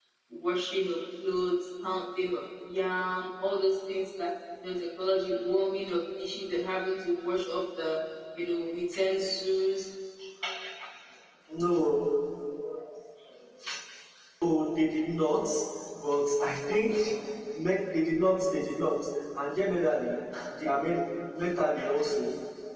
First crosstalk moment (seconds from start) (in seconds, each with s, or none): none